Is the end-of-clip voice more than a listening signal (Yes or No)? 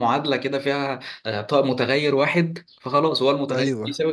No